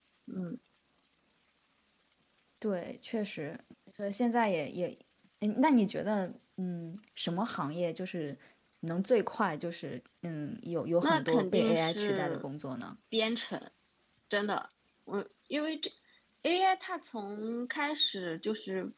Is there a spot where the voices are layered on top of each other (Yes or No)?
Yes